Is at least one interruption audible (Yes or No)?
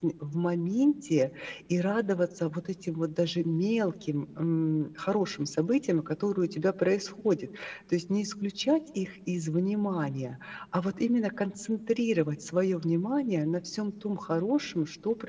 No